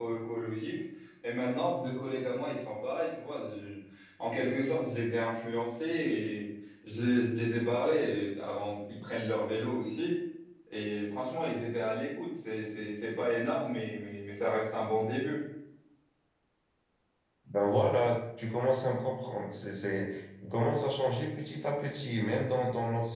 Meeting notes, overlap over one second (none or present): none